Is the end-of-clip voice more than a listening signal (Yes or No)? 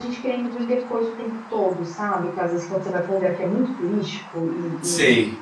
No